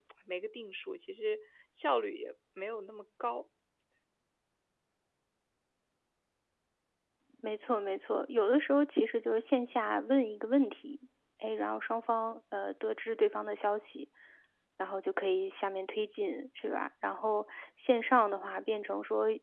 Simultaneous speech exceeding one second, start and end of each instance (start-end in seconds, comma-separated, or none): none